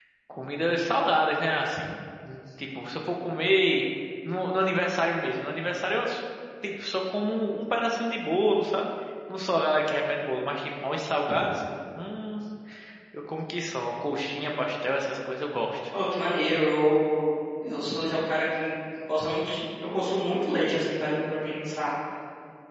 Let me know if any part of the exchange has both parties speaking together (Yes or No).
No